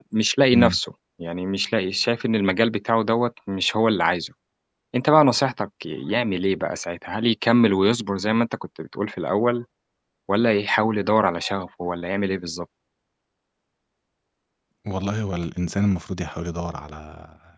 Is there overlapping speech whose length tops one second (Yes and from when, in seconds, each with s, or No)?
No